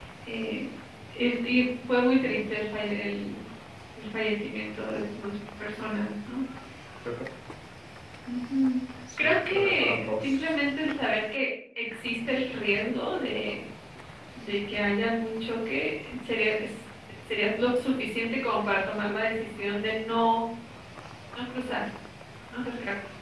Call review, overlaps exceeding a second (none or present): present